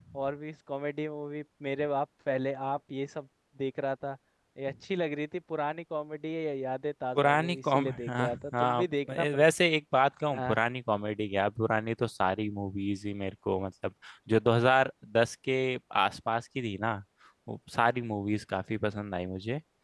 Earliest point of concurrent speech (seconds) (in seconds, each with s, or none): 7.2 s